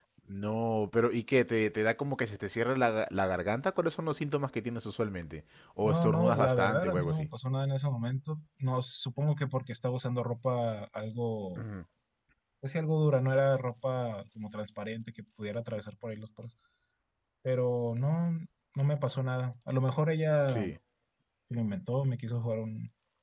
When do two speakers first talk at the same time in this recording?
5.8 s

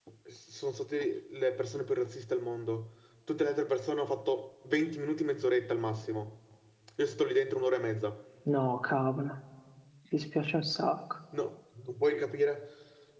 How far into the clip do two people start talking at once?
none

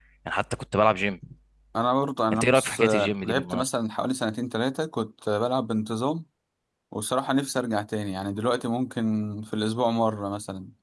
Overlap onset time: 2.3 s

